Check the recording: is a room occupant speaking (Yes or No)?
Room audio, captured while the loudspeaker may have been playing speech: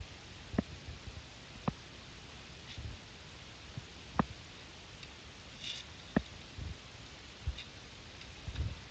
No